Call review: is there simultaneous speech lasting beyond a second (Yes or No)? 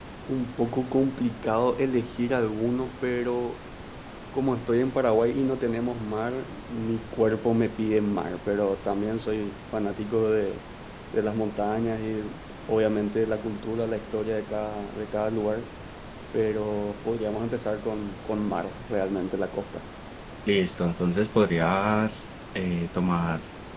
No